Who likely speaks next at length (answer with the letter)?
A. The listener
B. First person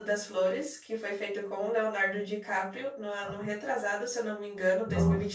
A